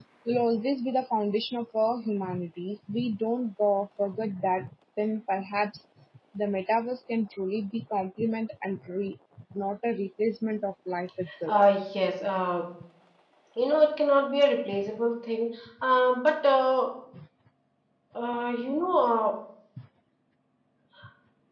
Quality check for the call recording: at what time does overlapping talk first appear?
none

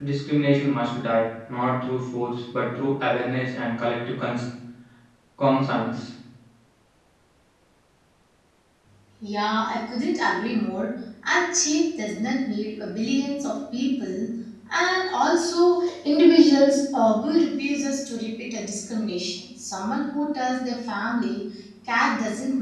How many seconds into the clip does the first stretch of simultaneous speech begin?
none

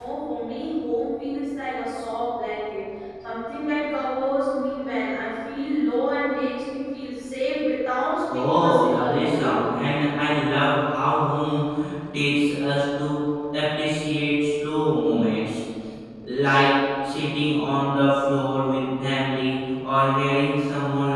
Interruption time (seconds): 8.3 s

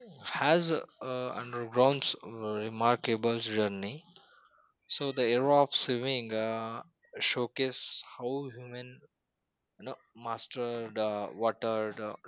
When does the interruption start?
none

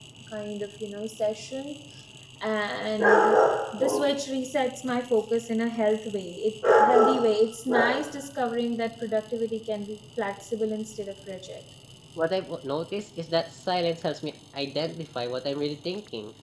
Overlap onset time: none

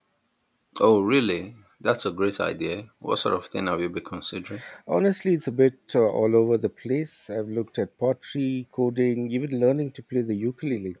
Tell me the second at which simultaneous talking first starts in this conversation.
none

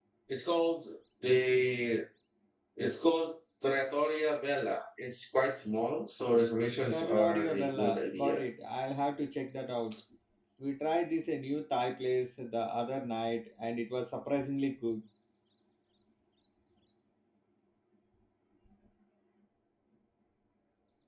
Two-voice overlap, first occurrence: 6.9 s

